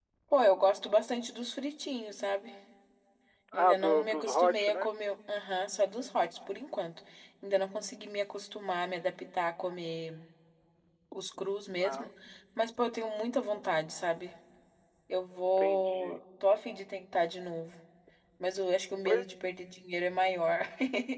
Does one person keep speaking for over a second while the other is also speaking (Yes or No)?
Yes